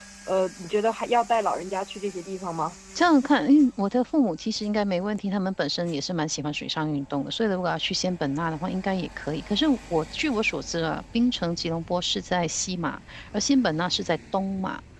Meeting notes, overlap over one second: none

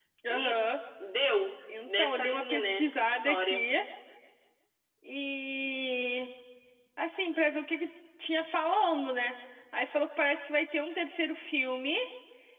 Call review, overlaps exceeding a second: present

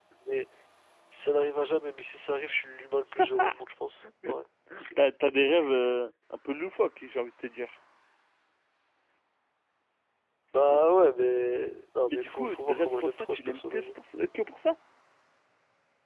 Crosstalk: present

